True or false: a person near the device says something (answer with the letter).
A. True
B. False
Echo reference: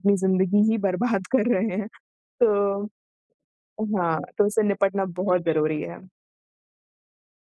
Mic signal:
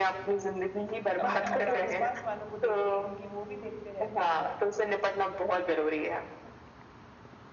A